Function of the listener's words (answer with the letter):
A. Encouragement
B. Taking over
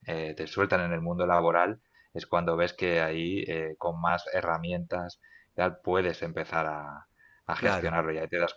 A